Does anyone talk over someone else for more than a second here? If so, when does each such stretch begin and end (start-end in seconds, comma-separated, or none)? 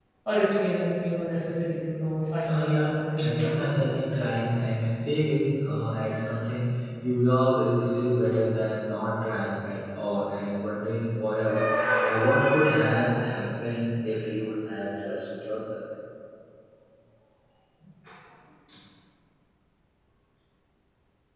2.4-3.8